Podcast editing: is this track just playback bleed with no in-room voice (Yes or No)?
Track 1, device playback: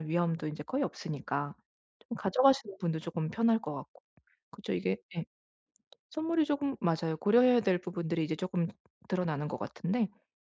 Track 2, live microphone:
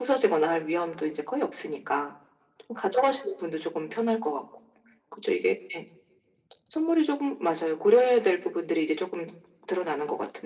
Yes